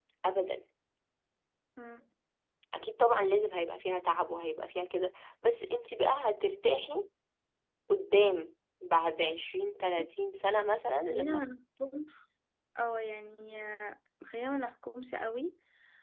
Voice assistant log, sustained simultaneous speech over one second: none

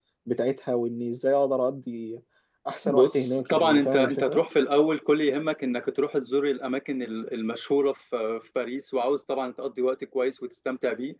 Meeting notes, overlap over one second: present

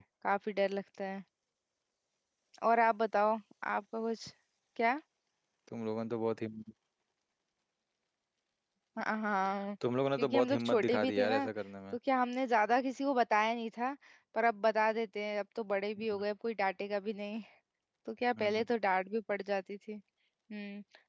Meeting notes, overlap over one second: present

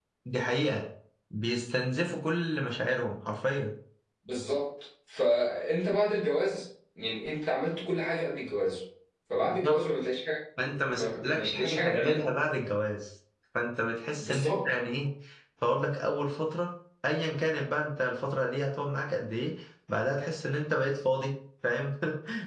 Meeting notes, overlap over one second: present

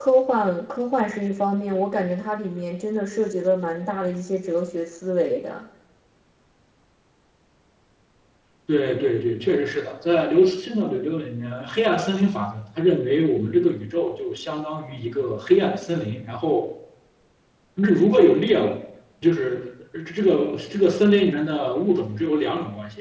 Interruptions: none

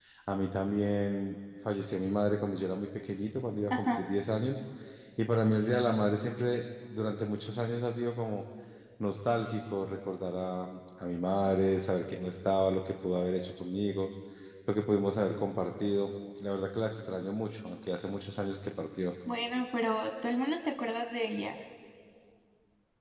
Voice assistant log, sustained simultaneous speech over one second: none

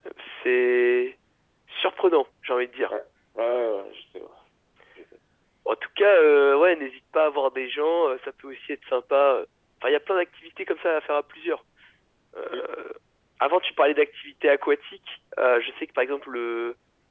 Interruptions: none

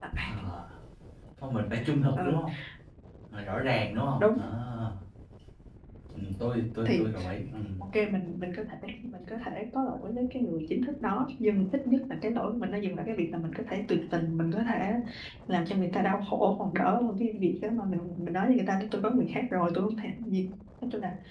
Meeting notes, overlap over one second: none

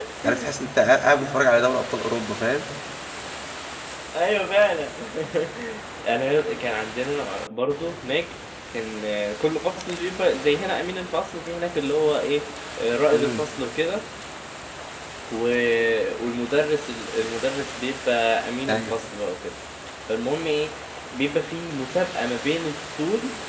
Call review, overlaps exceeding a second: none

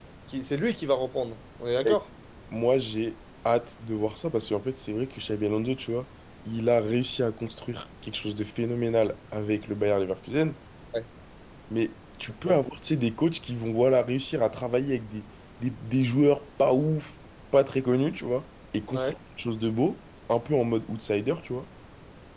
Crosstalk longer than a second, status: none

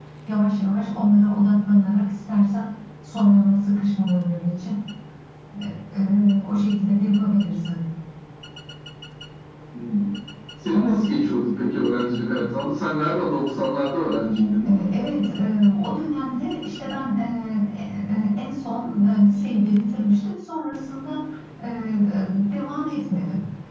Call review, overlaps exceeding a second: none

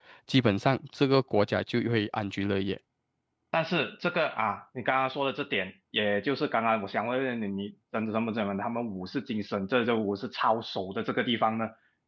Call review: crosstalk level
none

